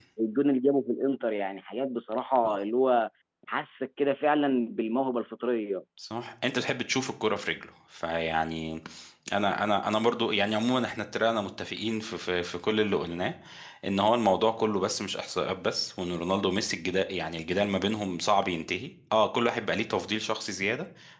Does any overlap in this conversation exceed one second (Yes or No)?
No